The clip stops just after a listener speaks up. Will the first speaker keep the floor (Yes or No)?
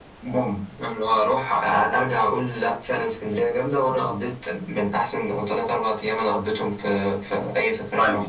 No